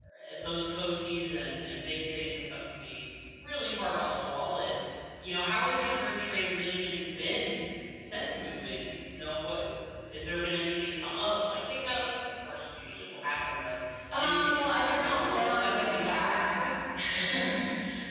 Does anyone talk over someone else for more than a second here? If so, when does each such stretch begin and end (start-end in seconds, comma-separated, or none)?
14.2-16.3